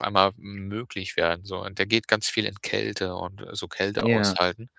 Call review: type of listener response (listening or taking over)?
listening